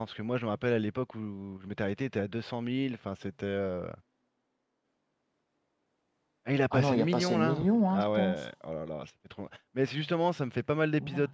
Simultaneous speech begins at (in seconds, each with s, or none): 6.7 s